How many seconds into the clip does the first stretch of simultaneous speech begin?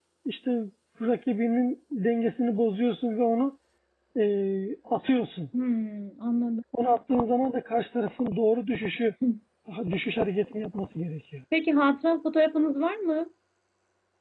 none

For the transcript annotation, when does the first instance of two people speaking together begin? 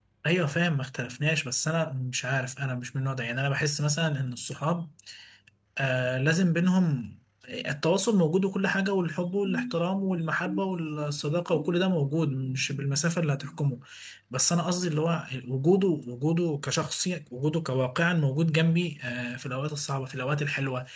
none

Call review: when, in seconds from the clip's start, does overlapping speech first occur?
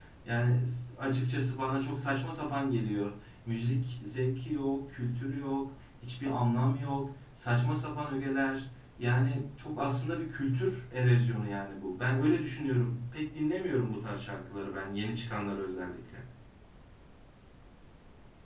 none

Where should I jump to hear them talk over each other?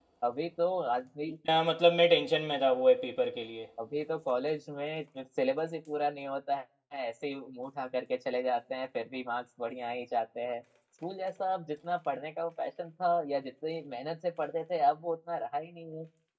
none

